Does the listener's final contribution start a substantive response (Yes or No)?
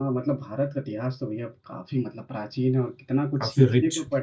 No